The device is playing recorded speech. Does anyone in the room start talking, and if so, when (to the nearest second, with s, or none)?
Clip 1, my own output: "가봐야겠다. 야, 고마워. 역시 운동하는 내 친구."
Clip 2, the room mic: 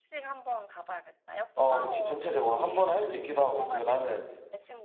2 s